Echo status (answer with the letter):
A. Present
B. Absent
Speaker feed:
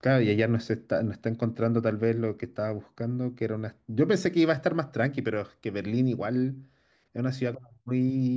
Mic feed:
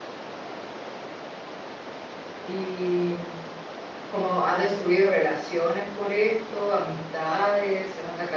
B